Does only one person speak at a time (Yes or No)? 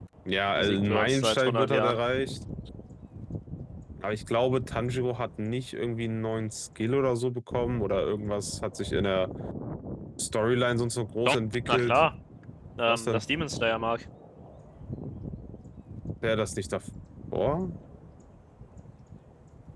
No